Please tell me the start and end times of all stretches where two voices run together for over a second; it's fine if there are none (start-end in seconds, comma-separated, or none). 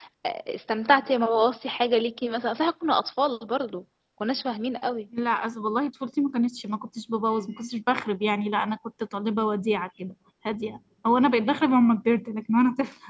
none